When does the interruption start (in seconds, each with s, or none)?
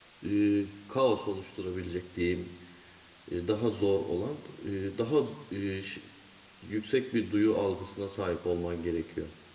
none